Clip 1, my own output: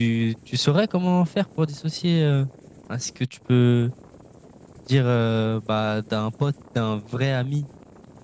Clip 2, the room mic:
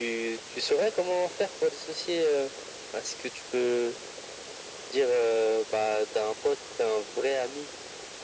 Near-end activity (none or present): none